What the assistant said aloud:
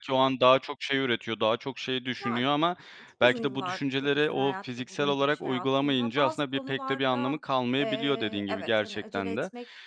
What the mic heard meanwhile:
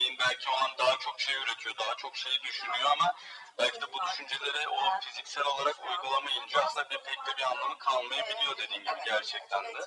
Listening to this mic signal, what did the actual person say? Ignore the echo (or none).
none